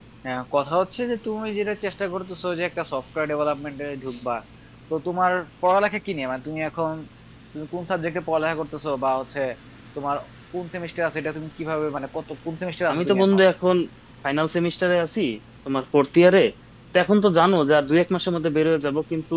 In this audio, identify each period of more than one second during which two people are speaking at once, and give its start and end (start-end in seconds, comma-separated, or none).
none